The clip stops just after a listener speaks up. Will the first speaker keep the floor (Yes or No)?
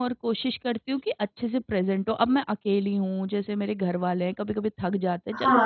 No